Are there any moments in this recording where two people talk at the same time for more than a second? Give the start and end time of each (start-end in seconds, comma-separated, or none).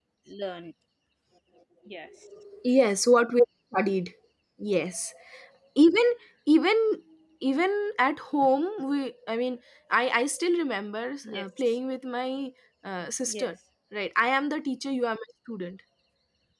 none